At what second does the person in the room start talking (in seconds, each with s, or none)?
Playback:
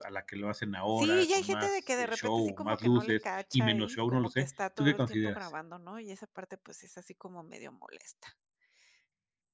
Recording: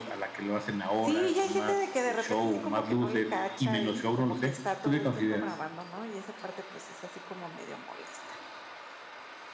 none